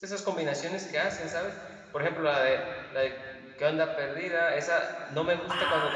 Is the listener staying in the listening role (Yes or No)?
Yes